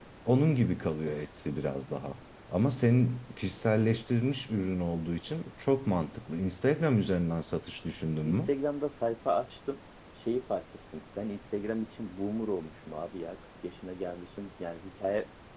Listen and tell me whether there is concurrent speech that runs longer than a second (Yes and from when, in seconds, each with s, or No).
No